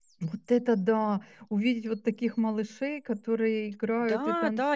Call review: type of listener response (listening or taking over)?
taking over